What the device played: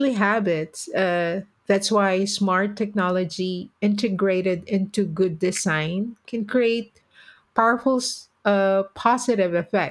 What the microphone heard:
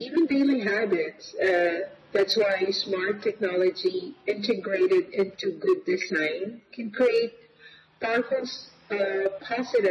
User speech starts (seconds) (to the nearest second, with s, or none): none